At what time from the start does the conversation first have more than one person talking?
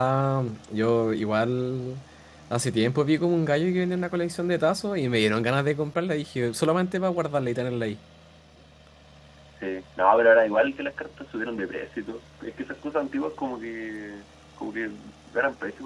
none

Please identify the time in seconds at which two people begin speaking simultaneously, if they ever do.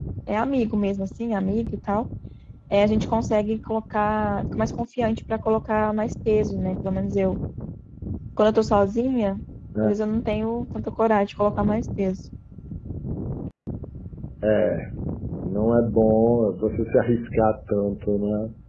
none

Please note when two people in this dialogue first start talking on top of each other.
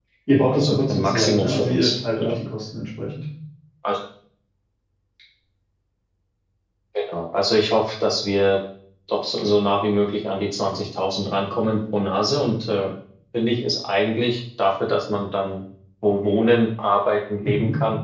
0.5 s

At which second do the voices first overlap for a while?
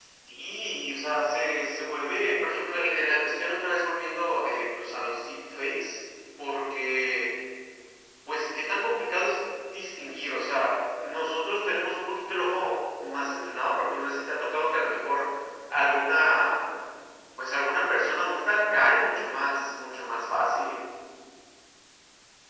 none

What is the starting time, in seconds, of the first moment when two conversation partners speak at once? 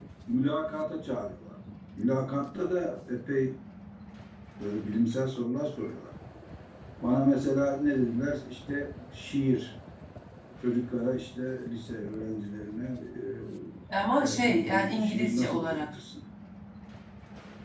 14.2 s

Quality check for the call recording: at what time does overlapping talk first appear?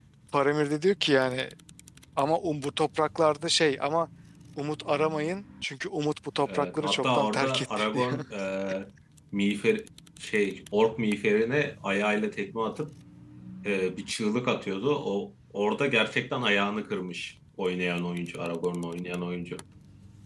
6.4 s

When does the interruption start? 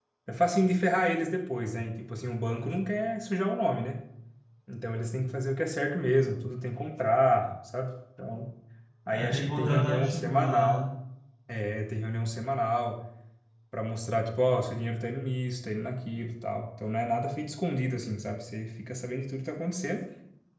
9.1 s

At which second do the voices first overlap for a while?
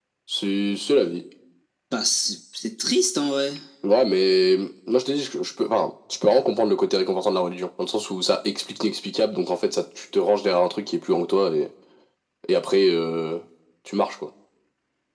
none

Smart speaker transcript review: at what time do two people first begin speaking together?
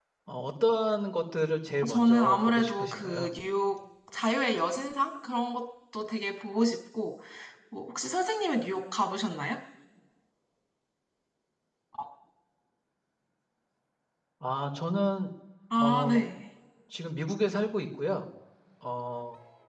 1.8 s

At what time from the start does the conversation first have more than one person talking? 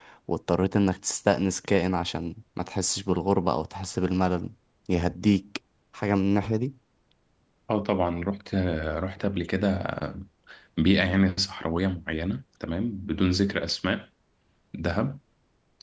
none

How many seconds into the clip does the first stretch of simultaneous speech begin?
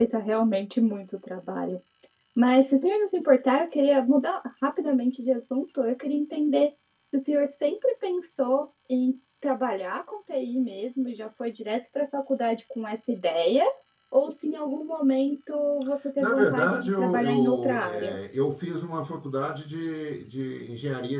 16.2 s

